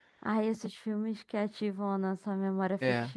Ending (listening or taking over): taking over